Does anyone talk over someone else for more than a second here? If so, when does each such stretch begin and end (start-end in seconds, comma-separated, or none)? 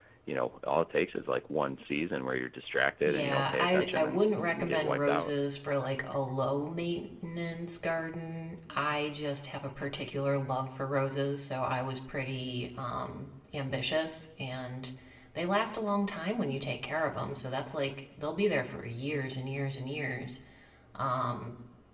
3.0-5.3